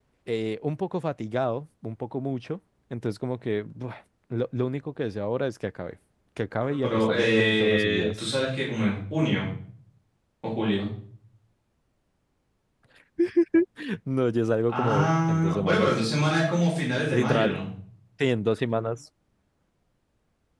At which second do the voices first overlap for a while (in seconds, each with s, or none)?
6.6 s